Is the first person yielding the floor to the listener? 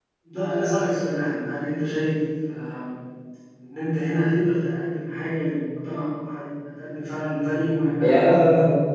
Yes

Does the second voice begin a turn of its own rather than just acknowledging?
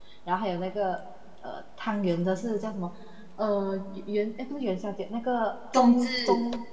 No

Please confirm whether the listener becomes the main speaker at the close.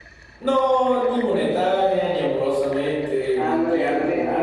Yes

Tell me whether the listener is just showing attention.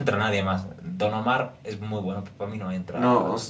No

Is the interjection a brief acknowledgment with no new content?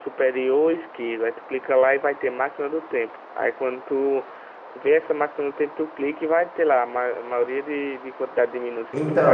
No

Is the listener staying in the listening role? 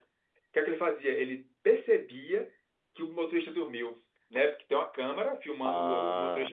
Yes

